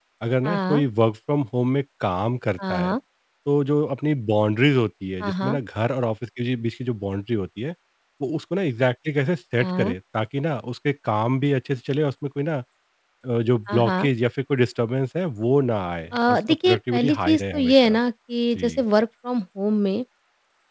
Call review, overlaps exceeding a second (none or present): present